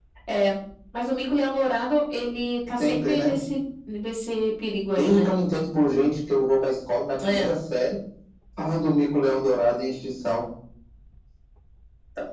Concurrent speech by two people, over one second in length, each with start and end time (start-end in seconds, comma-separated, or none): none